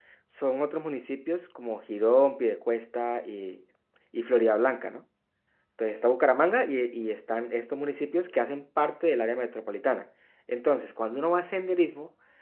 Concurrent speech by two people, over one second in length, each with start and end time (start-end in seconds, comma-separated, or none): none